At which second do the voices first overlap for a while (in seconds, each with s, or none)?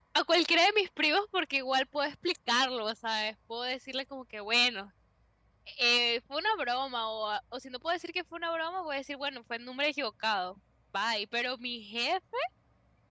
none